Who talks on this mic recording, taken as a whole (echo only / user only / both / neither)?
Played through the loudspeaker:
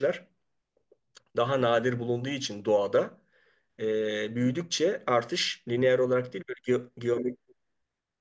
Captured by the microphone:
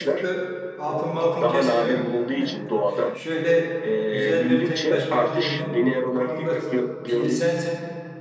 both